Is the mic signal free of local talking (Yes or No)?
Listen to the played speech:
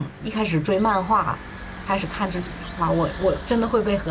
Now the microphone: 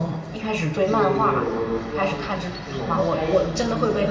No